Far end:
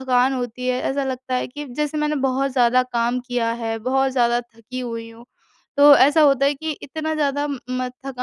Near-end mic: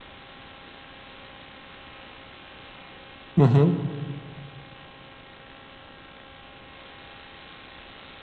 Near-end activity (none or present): present